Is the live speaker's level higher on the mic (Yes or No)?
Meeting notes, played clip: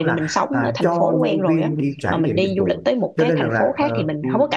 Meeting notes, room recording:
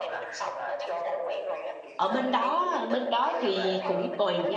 Yes